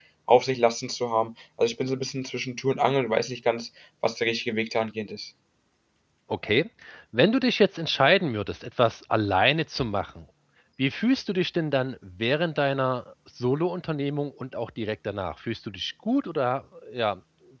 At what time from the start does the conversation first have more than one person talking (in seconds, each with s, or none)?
none